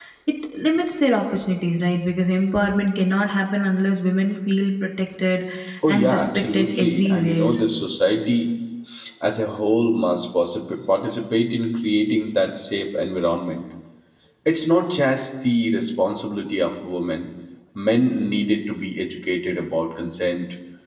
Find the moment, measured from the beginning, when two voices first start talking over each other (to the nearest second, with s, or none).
6 s